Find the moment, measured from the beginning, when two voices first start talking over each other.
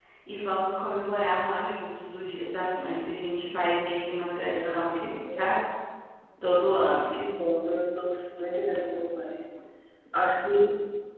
4.3 s

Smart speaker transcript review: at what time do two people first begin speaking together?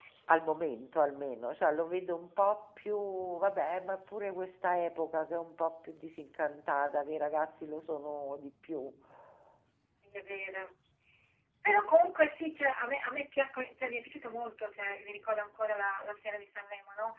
none

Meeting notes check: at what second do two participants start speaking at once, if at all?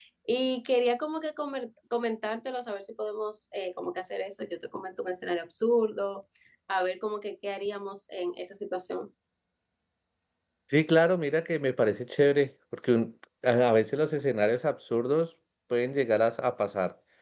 none

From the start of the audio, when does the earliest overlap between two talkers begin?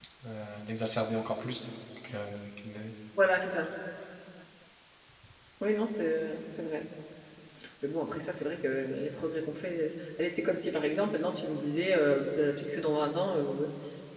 none

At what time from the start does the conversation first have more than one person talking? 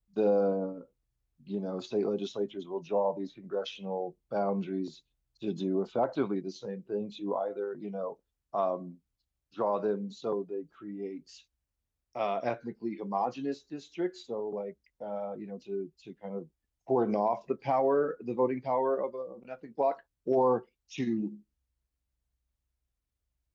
none

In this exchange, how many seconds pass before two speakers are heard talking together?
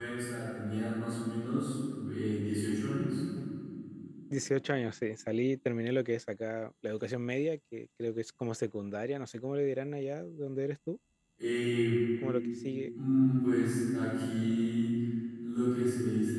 none

